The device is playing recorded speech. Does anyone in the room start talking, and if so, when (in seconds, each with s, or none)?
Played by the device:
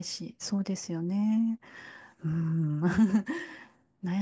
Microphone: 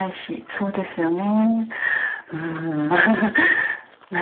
none